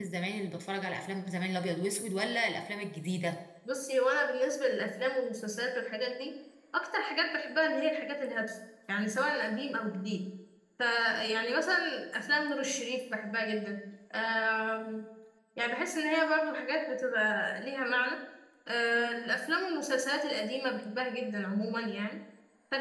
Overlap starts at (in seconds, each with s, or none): none